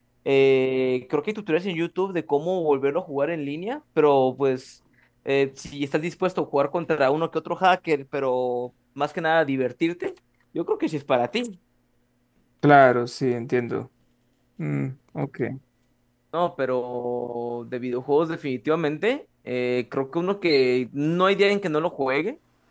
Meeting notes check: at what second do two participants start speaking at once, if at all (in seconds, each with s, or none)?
none